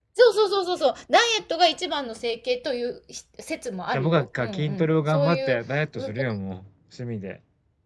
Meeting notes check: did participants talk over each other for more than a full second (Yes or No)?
Yes